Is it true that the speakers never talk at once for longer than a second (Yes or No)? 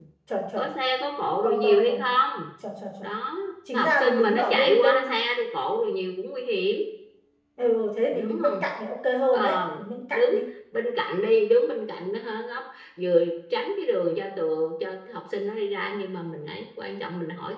No